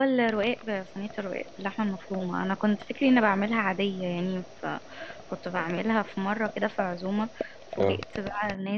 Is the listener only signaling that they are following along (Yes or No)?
Yes